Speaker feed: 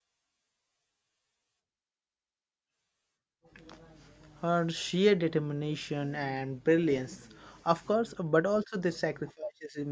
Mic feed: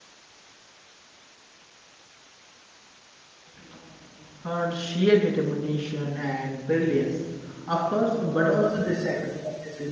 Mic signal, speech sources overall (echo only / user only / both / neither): echo only